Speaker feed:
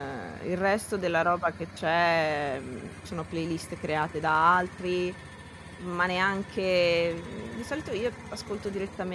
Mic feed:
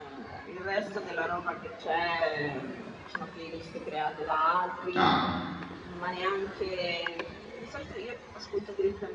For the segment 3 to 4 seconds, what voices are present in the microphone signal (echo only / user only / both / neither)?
echo only